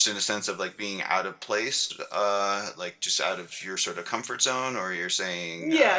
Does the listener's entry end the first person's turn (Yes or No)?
Yes